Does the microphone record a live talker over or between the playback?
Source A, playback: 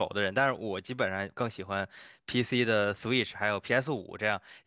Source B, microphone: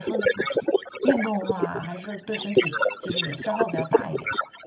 Yes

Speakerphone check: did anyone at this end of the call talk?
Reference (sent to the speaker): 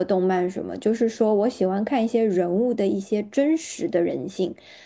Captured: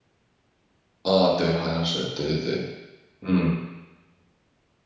Yes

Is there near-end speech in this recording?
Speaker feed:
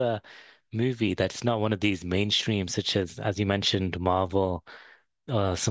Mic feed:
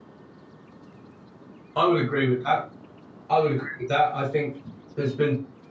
Yes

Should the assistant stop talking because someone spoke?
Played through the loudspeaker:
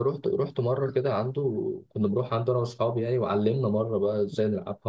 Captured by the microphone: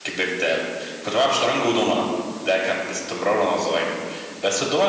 Yes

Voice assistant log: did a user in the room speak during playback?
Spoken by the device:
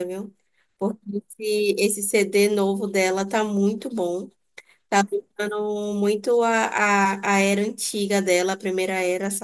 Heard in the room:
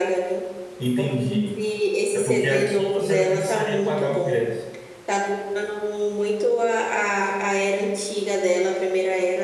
Yes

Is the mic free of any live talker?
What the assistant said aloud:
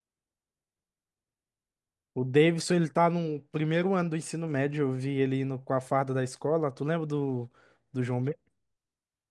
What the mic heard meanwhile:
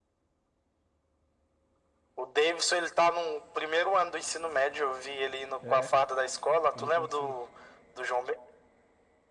No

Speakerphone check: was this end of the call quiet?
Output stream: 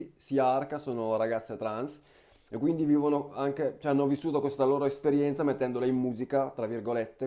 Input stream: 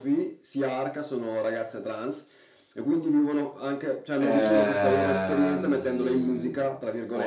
No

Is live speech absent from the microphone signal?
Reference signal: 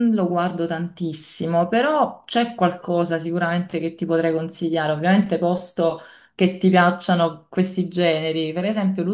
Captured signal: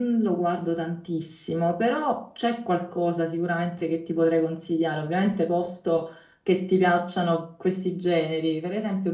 Yes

